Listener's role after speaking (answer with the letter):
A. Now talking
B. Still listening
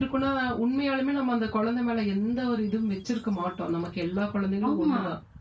B